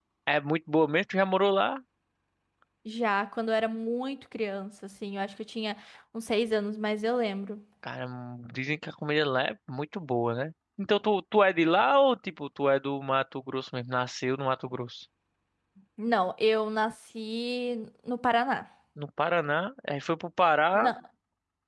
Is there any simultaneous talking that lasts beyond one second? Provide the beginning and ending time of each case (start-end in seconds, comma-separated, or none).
none